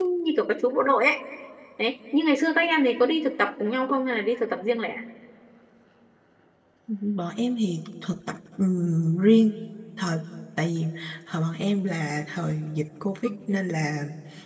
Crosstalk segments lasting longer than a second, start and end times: none

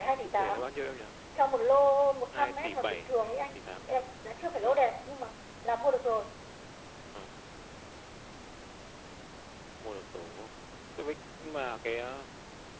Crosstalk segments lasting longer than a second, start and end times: 2.3-3.6

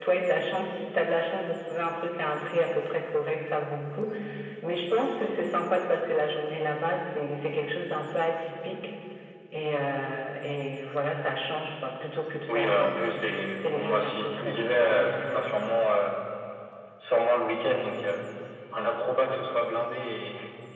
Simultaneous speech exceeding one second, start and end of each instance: 13.6-15.6

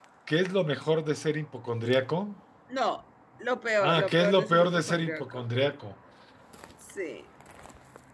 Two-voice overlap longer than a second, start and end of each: 3.8-5.4

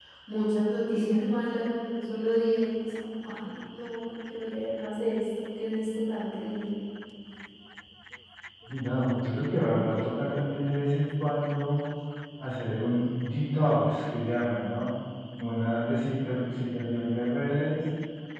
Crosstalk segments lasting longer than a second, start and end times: none

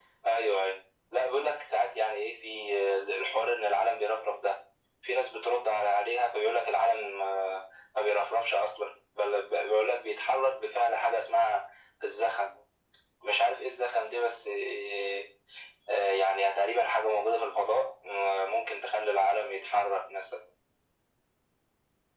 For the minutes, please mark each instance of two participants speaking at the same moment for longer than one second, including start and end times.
none

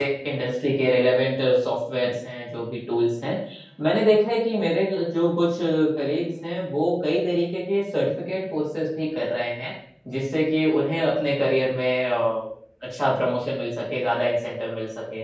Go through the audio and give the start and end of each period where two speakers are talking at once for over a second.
none

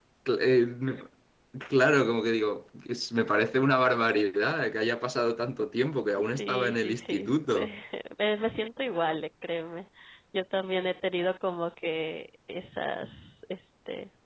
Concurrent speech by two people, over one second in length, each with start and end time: 6.3-7.7

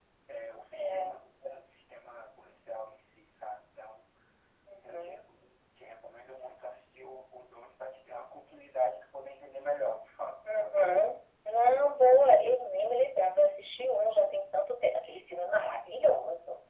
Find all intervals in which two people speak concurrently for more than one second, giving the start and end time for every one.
none

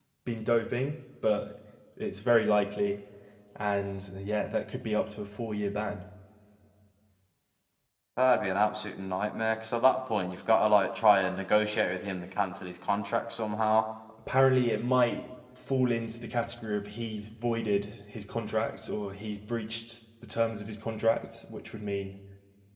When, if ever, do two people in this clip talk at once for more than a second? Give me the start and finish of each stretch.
none

